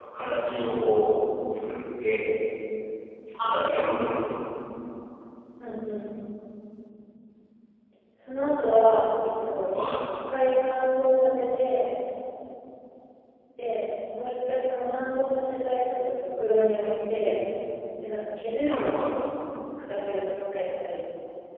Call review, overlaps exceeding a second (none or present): none